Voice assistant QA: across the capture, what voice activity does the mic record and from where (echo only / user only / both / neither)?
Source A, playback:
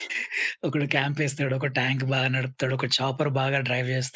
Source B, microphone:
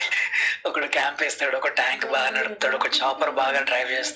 both